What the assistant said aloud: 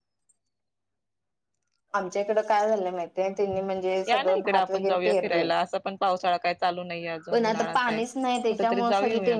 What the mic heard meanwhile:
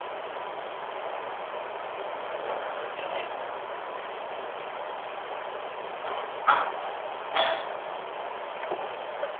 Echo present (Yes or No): No